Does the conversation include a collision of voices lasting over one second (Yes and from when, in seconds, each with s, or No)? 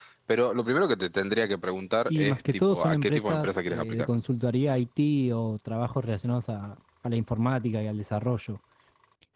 Yes, from 2.1 s